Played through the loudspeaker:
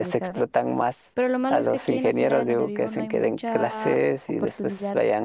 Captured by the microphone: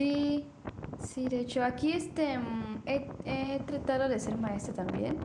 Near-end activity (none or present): present